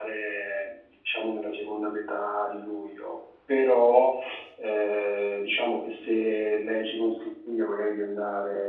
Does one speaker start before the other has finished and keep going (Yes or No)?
No